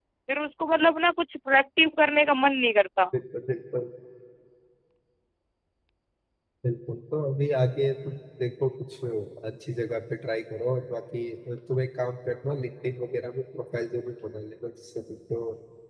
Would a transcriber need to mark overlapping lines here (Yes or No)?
No